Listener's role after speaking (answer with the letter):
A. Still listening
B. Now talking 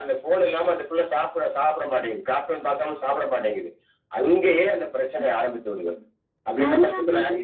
B